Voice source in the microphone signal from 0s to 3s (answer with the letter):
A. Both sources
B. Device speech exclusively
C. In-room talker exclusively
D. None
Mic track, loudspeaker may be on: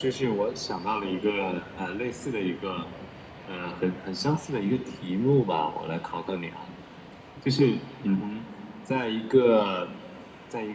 B